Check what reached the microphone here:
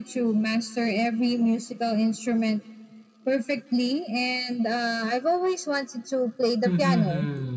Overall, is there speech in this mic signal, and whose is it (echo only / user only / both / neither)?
both